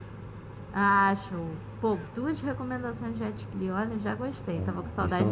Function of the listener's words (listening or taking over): taking over